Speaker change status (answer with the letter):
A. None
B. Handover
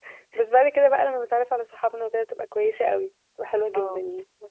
B